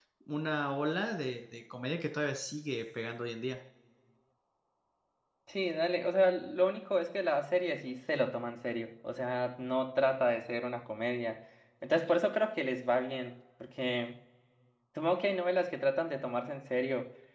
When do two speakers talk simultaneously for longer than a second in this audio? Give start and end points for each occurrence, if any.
none

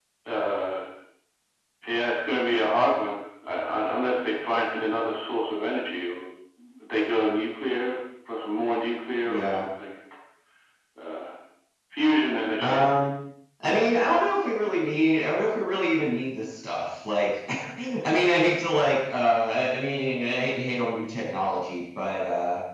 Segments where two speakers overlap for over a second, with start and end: none

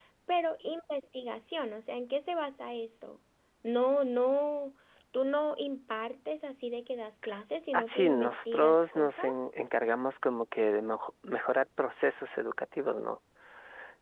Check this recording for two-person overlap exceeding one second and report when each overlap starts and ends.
7.7-9.3

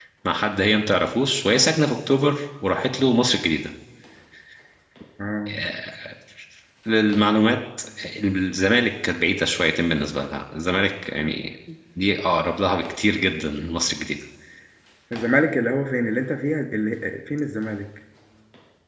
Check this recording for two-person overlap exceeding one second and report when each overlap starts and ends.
none

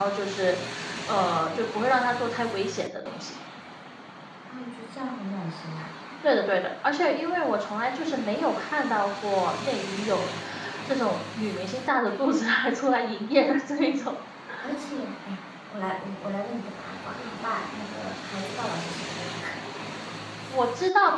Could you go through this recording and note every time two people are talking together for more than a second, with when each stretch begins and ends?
none

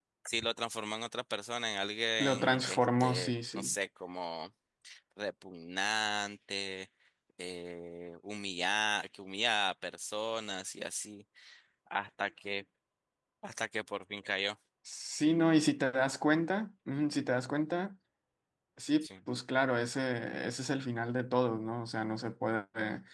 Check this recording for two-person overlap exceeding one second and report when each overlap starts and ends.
2.2-3.8

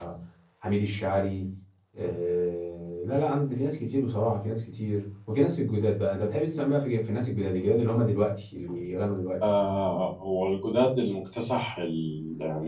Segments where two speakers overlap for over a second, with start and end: none

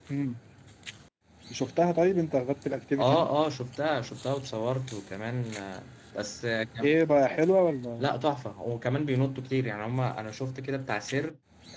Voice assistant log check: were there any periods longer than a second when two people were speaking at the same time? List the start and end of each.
none

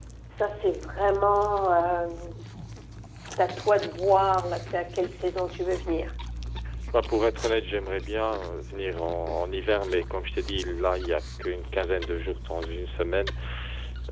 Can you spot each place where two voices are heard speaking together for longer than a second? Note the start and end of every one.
none

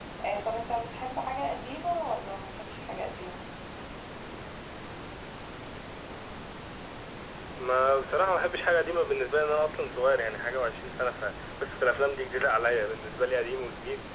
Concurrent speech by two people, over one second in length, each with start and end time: none

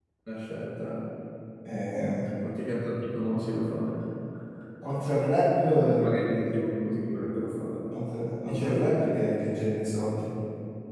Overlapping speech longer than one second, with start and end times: none

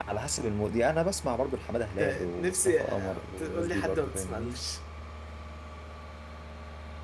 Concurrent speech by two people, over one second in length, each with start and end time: 2.0-4.6

